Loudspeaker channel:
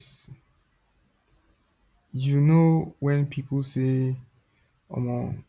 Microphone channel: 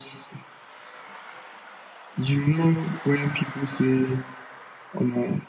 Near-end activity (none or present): none